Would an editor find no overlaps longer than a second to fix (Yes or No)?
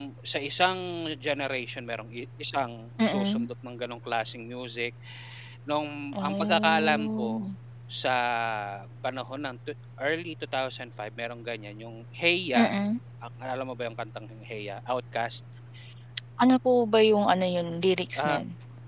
No